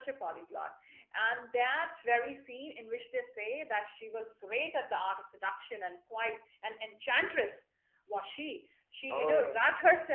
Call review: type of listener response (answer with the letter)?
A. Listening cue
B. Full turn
A